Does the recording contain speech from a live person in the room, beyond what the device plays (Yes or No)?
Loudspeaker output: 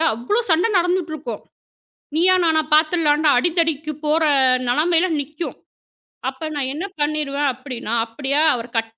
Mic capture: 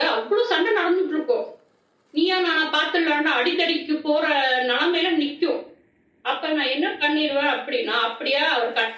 No